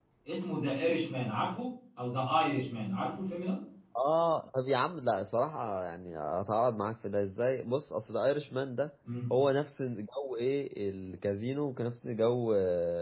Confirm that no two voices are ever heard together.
Yes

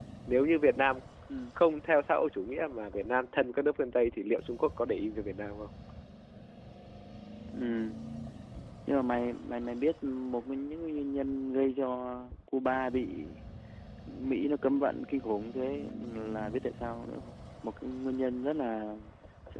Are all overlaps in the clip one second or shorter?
Yes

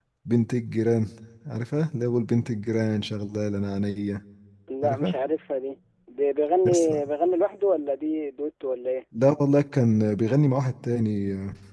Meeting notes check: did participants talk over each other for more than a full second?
No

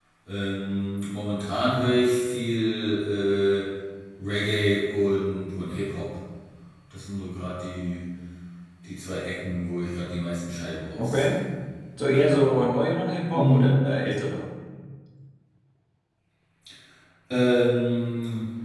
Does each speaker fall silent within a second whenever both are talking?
Yes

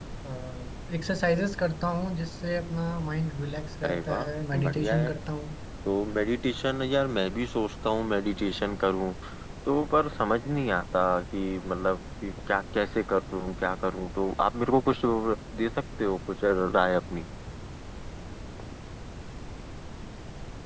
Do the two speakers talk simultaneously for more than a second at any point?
Yes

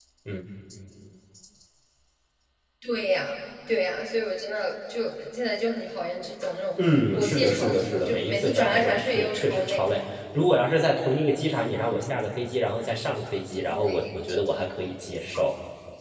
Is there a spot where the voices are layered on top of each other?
Yes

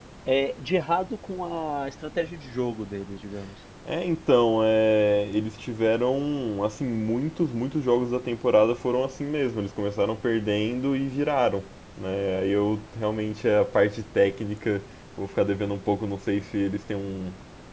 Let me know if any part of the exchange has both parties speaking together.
No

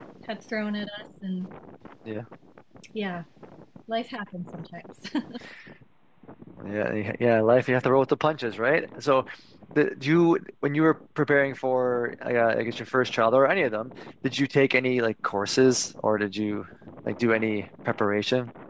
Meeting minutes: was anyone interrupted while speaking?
No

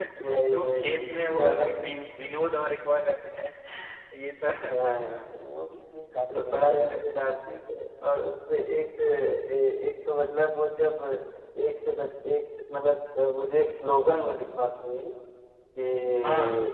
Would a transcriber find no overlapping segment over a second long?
No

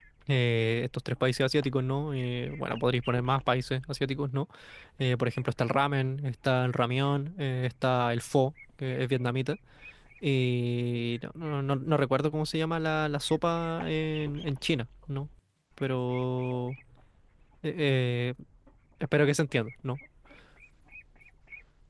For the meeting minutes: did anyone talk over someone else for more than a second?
No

